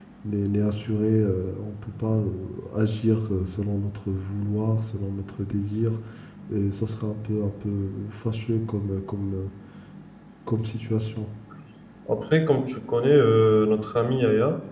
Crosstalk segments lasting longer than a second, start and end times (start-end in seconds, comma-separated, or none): none